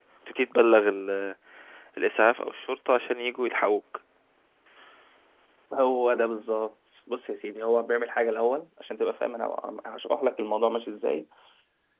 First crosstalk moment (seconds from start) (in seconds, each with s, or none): none